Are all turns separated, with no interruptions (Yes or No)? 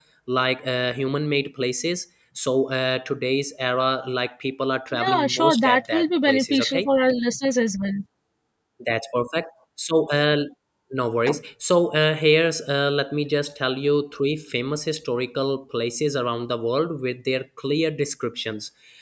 No